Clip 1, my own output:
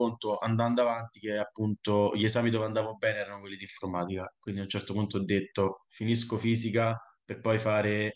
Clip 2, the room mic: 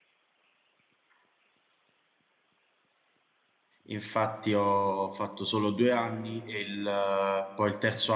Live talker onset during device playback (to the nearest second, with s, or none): 4 s